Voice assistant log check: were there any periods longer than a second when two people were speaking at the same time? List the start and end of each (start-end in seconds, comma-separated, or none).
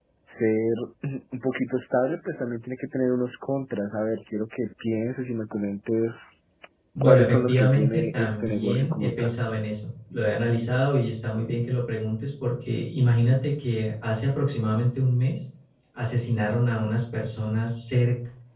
7.0-9.3